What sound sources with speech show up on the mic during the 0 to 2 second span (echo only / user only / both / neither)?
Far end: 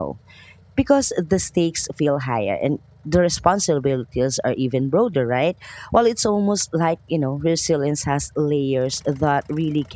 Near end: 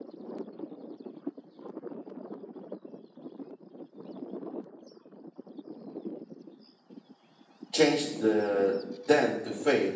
neither